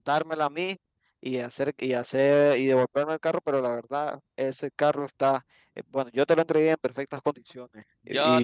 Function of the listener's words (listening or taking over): taking over